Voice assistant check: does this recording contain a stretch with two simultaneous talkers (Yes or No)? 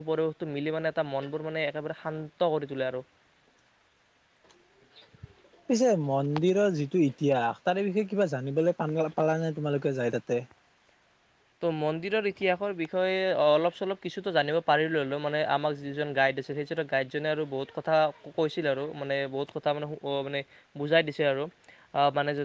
No